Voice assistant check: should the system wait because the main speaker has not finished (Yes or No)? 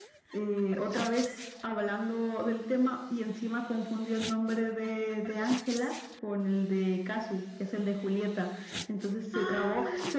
Yes